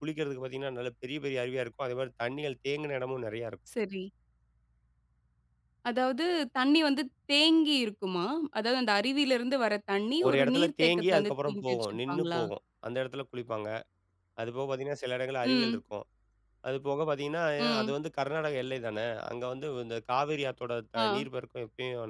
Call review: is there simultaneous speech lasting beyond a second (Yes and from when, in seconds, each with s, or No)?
Yes, from 10.2 s